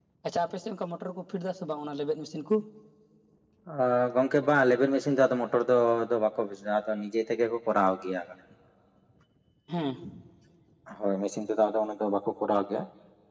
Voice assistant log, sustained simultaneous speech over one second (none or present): none